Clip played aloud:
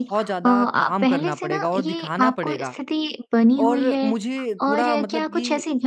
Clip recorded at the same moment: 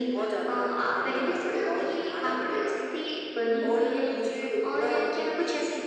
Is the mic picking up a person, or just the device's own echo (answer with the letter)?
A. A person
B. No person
B